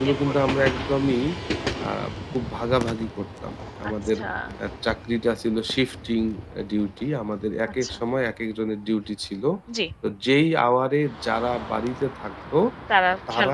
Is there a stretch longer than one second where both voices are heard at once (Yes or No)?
No